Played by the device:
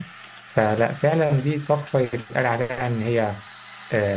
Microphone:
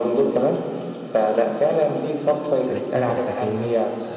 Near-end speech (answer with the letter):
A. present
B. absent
A